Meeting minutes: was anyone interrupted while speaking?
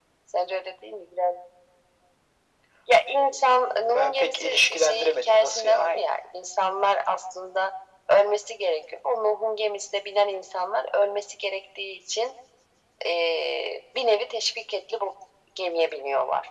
Yes, from 3.4 s

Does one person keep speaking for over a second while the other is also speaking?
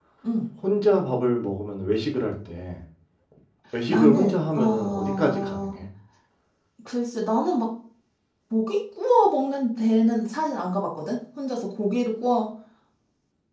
Yes, from 3.9 s

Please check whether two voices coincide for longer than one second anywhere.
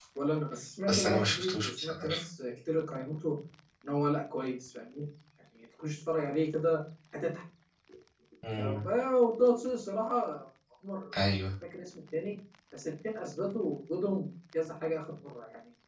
Yes, from 0.9 s

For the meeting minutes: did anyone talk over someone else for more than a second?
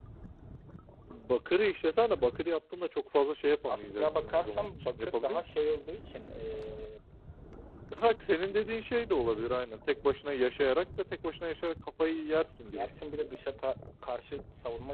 Yes, from 3.7 s

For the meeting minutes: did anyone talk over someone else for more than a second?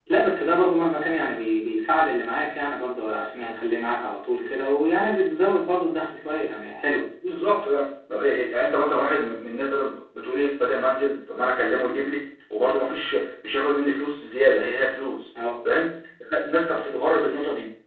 No

